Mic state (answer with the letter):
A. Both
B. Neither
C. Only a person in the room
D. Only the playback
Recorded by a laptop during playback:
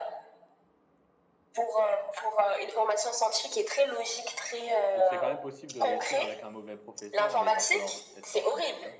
A